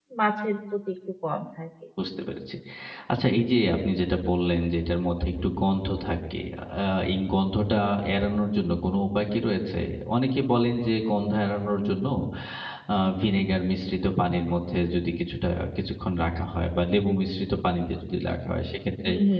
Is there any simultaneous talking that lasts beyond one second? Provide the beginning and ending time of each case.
none

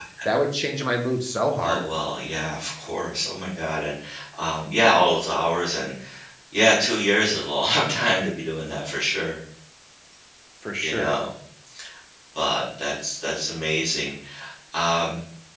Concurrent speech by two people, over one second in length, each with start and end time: none

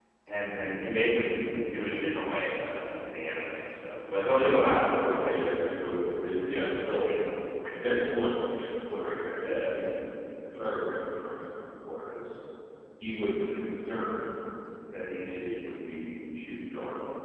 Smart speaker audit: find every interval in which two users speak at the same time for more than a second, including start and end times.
4.3-5.7

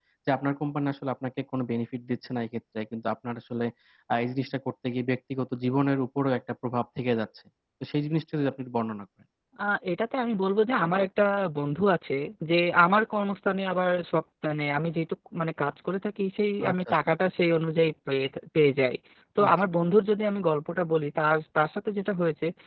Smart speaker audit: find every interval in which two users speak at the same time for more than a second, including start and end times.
none

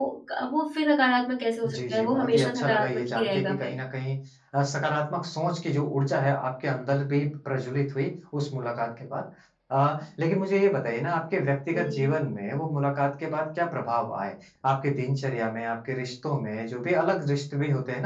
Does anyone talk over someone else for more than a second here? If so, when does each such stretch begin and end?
1.6-3.7

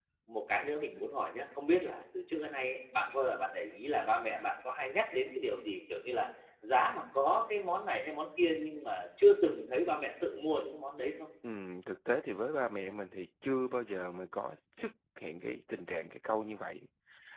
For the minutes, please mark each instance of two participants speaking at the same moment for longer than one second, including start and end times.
none

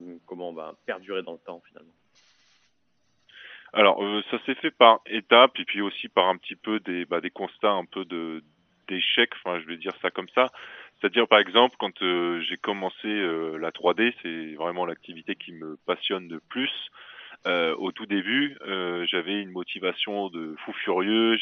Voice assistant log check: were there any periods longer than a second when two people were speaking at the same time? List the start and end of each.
none

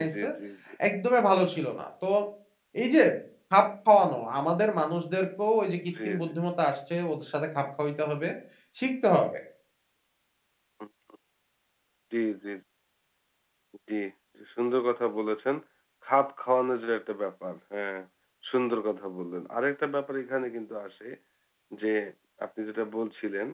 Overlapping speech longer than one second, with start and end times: none

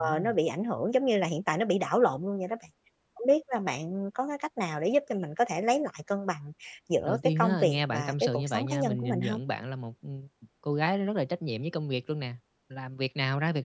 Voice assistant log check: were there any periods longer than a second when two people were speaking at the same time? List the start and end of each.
7.0-9.4

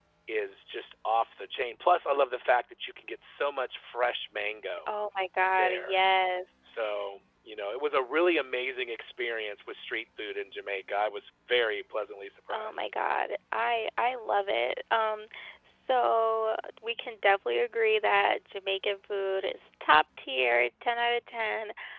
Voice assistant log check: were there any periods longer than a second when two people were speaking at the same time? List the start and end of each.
none

